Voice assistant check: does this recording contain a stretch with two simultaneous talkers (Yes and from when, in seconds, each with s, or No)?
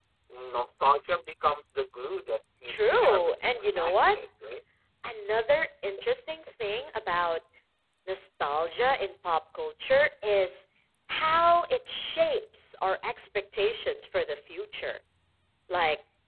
Yes, from 2.7 s